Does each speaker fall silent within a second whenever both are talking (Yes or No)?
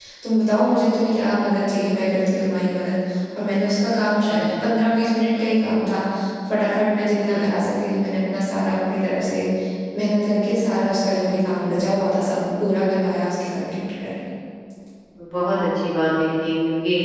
Yes